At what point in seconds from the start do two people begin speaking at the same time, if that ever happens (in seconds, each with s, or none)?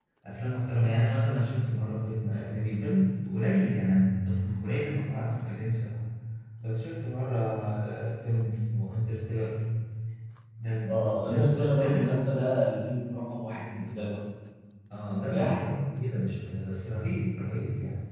10.9 s